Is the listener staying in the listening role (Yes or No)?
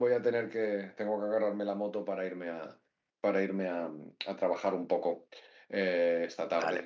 Yes